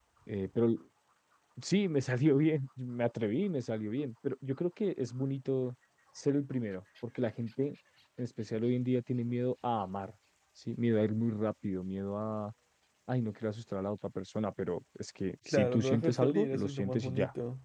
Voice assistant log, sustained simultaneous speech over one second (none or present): present